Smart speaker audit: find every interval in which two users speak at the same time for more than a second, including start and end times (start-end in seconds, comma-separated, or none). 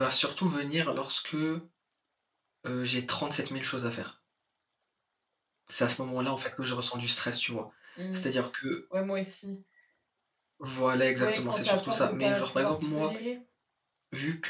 11.2-13.1